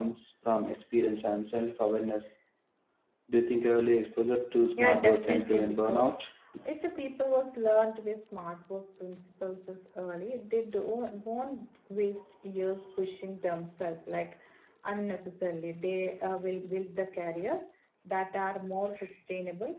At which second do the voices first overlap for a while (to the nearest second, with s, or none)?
5 s